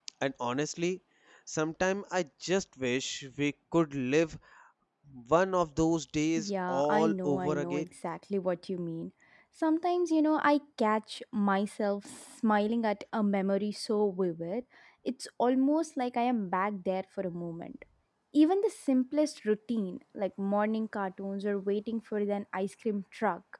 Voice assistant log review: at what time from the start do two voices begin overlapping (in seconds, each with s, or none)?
6.4 s